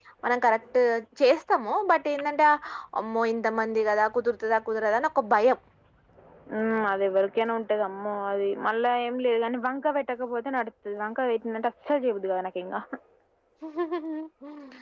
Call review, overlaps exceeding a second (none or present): none